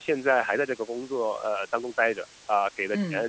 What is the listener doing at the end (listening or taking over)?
listening